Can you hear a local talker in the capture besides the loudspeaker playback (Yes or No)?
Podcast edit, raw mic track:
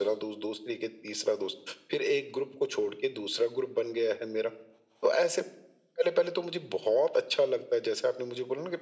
No